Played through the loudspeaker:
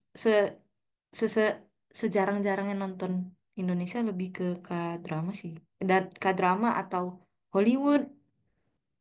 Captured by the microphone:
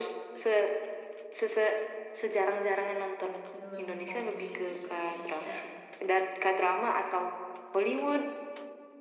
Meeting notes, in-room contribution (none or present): present